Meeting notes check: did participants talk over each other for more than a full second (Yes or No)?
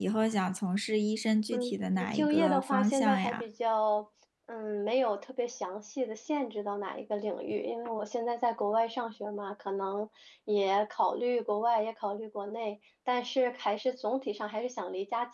Yes